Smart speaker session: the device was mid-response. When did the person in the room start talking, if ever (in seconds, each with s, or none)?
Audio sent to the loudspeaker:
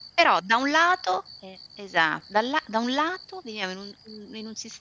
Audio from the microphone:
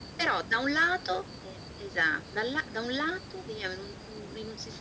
none